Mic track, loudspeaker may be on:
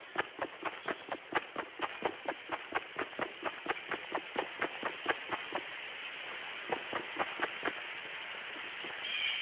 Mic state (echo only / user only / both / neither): neither